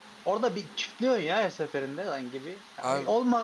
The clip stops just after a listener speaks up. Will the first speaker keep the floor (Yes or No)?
Yes